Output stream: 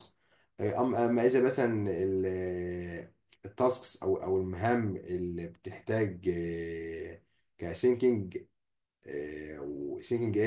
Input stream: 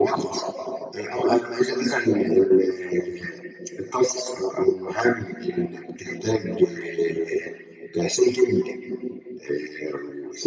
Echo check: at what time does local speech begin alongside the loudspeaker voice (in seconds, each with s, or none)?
none